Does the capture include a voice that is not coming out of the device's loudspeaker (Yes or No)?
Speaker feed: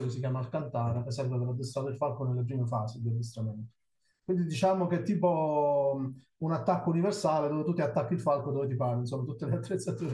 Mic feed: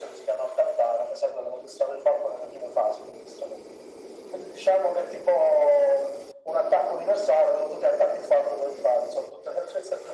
No